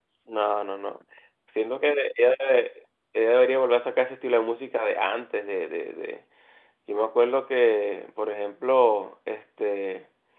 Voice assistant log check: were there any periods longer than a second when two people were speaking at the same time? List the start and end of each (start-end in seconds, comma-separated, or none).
none